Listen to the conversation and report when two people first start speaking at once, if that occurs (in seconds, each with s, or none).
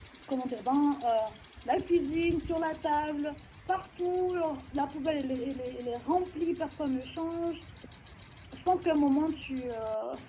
none